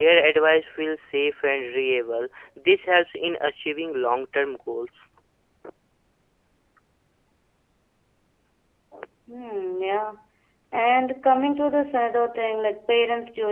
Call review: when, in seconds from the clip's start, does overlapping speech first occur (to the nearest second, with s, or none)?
none